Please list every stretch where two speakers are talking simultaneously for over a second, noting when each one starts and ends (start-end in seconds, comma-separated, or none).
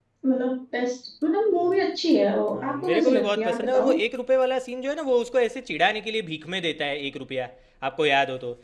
2.5-3.9